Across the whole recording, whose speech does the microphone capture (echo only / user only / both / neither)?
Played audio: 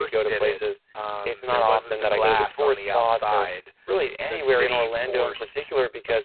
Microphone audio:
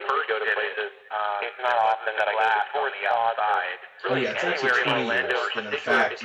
both